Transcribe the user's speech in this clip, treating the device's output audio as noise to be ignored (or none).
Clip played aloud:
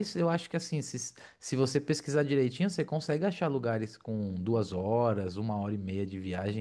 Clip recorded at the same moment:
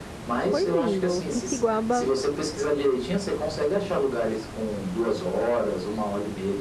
Foi lindo. Pisciguaba